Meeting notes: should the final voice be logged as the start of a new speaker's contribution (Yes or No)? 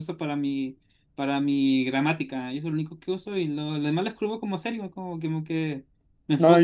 Yes